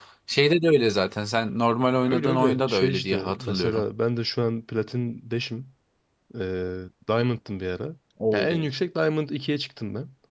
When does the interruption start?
2.0 s

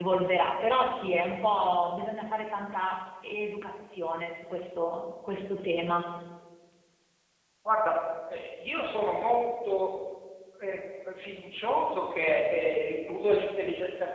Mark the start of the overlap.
none

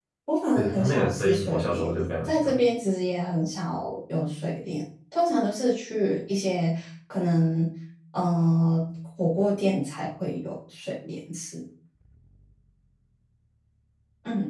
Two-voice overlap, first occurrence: 0.6 s

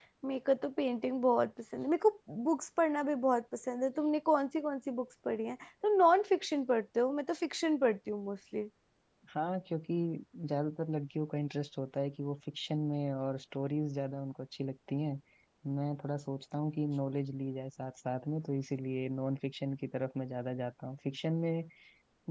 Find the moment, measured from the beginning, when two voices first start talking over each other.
none

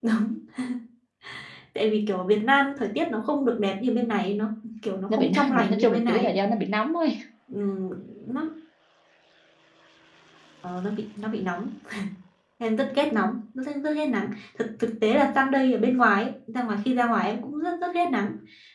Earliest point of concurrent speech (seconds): 5.1 s

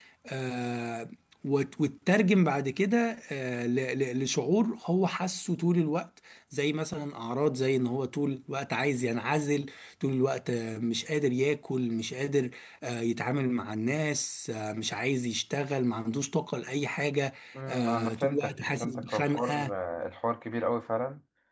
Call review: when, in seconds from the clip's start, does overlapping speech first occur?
17.6 s

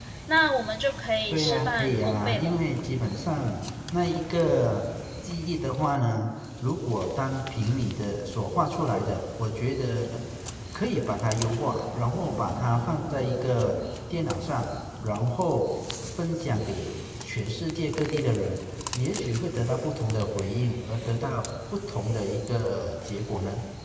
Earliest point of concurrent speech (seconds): 1.3 s

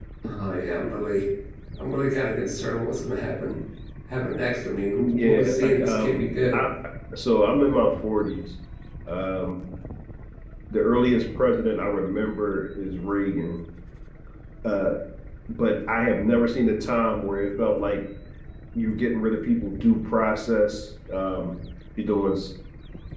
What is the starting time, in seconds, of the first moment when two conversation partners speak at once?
5.0 s

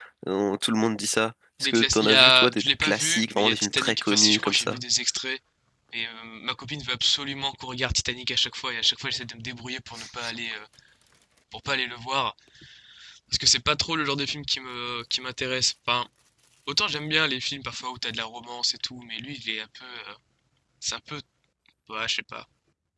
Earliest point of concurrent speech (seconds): 1.6 s

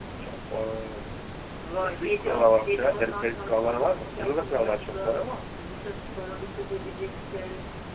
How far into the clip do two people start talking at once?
1.8 s

